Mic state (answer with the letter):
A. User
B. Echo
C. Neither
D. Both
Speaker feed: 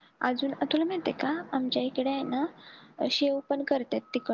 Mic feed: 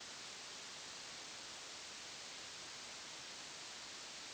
C